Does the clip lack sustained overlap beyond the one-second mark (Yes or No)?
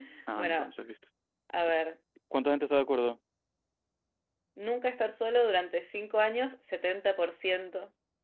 Yes